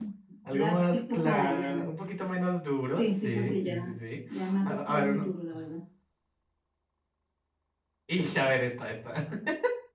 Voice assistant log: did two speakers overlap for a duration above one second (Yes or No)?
Yes